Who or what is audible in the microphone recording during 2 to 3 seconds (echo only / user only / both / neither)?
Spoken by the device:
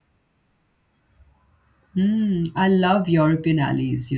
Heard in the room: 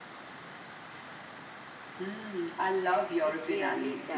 echo only